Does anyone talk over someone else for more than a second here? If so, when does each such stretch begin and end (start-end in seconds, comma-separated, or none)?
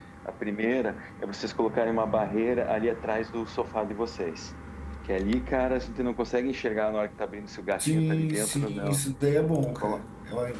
7.8-9.0